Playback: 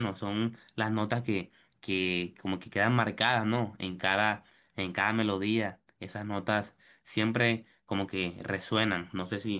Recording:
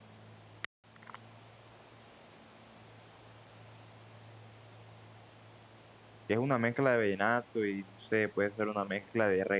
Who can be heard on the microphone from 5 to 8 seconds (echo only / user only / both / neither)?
user only